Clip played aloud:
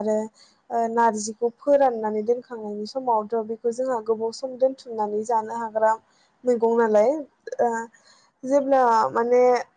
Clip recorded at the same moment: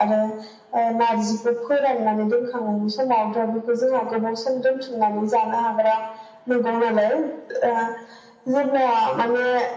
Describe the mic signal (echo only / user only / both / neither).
echo only